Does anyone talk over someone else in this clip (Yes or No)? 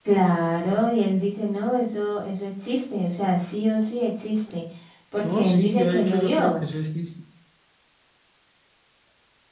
Yes